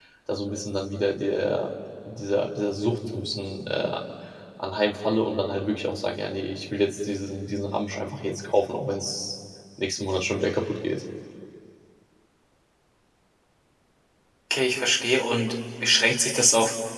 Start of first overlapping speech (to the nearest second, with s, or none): none